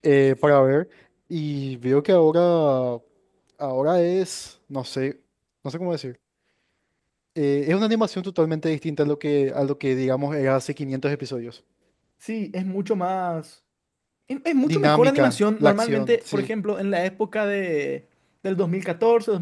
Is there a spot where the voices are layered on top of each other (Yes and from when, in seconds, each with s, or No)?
Yes, from 14.7 s